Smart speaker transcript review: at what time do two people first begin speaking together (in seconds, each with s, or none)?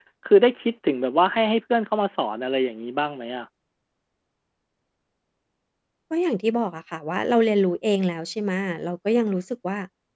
none